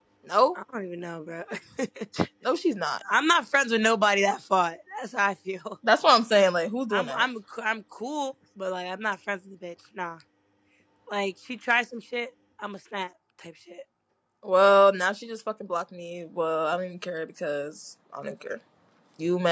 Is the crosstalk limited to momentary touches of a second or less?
Yes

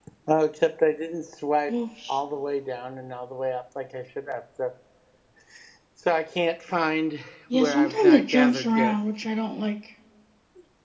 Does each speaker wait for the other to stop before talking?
No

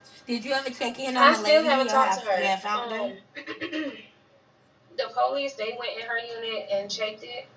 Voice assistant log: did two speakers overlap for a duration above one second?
Yes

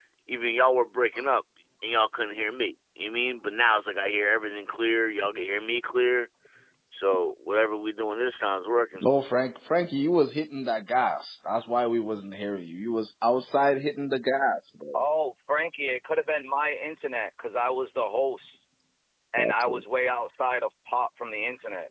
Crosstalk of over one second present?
No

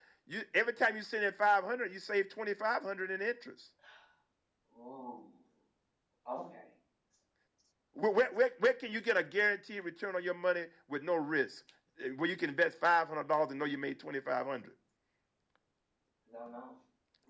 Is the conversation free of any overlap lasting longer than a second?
Yes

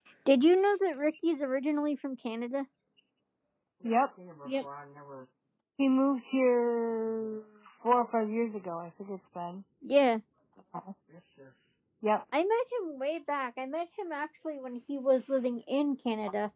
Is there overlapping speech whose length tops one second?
No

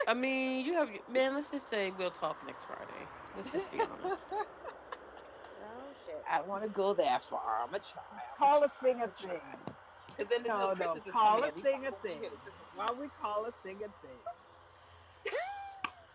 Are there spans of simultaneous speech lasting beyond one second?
Yes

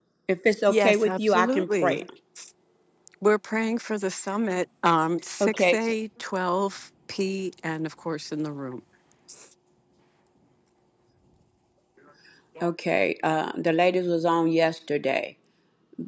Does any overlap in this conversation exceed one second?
Yes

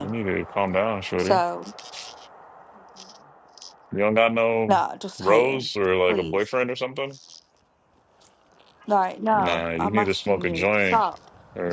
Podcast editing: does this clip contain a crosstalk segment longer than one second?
Yes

